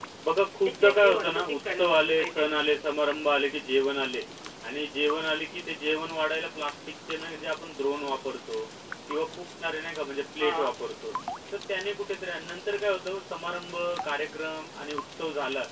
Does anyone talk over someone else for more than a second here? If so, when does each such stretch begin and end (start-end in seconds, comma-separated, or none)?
0.8-2.4